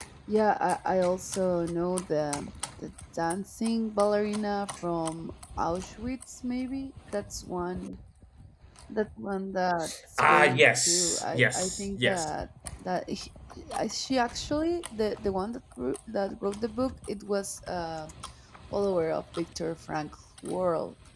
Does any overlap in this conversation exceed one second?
Yes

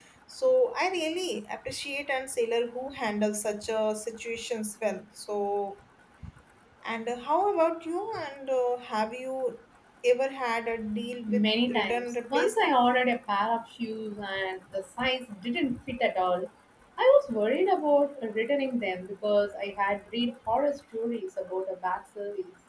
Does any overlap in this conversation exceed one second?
Yes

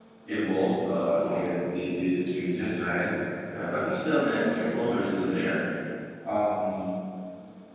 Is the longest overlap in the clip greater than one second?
Yes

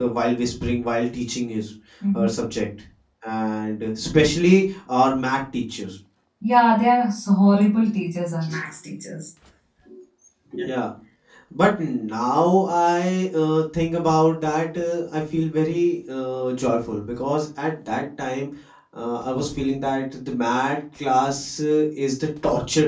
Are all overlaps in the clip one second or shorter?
Yes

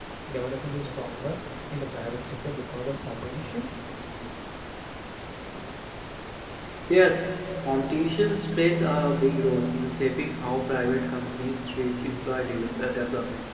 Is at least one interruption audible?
No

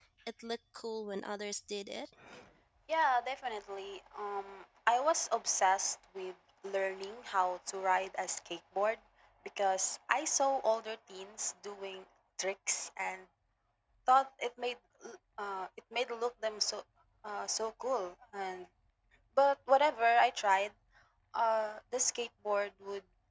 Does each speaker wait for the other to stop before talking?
Yes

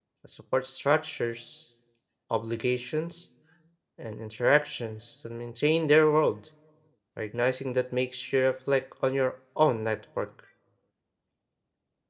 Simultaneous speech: No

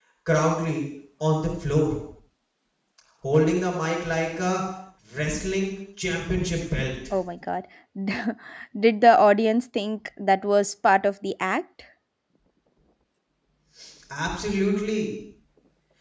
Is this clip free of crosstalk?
Yes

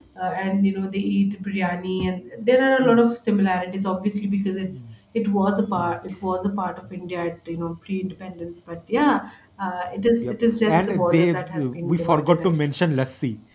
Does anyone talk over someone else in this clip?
Yes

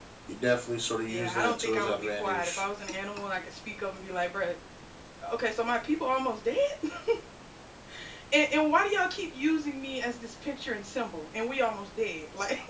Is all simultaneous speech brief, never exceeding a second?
No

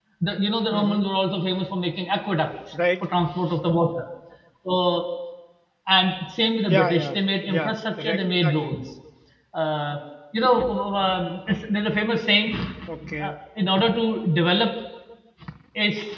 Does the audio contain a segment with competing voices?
Yes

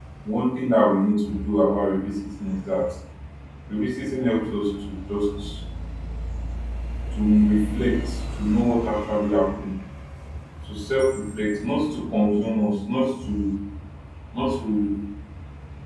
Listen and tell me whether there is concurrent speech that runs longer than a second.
No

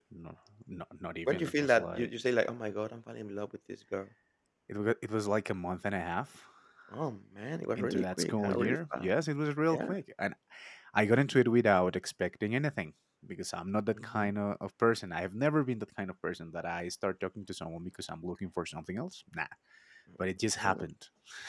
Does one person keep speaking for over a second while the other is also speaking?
Yes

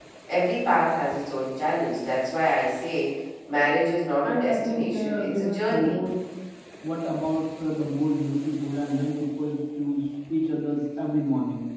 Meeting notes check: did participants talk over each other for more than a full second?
Yes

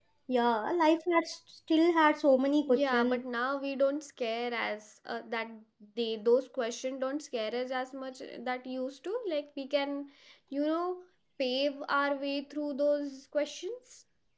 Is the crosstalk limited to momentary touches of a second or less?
Yes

